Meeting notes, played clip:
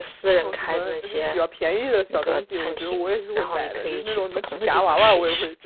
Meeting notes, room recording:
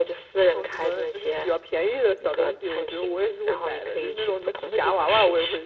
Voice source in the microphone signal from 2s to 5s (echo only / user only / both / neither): echo only